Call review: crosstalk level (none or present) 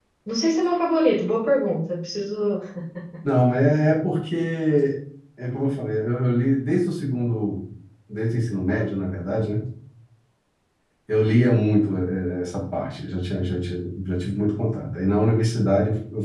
none